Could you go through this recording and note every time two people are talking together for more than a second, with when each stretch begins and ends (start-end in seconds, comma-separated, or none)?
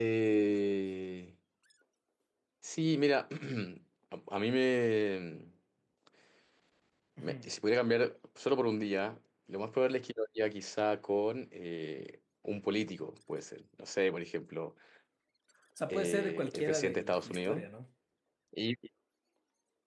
15.9-17.6